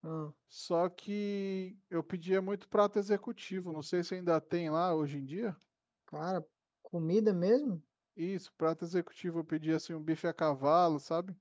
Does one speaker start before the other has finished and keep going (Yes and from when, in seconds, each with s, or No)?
No